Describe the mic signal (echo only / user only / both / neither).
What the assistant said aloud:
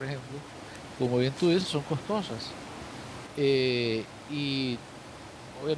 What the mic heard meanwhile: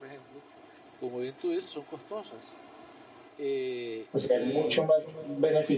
both